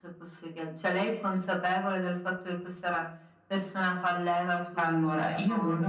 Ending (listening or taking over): taking over